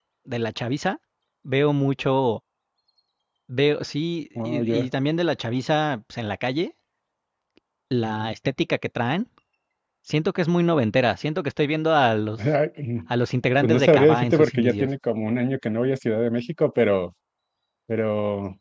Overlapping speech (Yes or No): Yes